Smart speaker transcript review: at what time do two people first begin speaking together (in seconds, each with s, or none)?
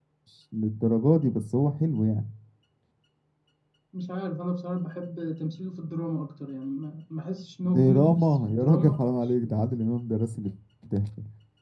7.6 s